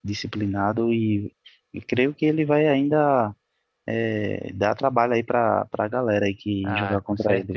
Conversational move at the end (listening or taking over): taking over